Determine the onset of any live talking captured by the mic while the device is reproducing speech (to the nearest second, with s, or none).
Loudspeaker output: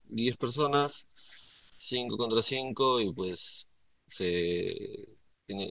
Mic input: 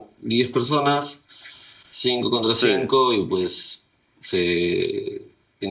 3 s